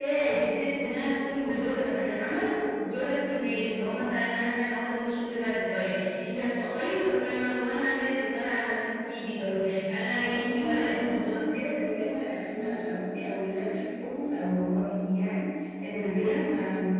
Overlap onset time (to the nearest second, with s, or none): 10 s